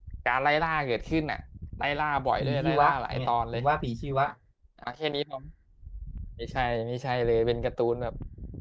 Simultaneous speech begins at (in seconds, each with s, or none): 2.4 s